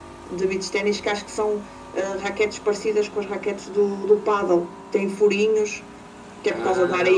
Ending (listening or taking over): listening